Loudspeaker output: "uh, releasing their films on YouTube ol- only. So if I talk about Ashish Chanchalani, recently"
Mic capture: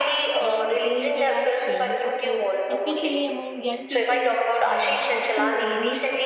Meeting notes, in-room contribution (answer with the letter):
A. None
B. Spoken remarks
B